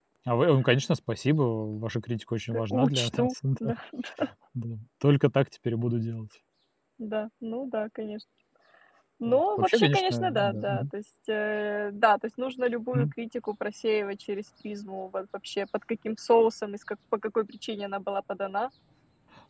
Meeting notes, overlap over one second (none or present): present